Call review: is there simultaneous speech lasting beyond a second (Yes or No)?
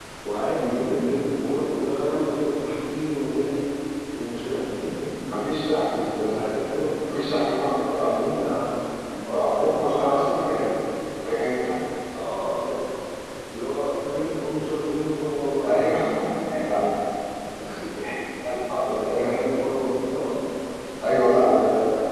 Yes